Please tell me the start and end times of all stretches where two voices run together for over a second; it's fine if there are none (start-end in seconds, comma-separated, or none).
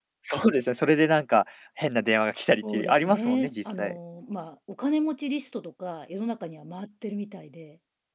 2.7-4.0